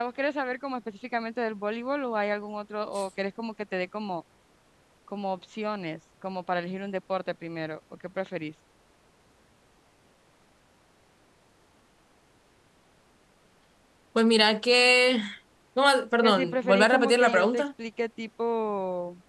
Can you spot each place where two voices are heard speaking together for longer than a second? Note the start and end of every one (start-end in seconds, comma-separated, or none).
16.2-17.6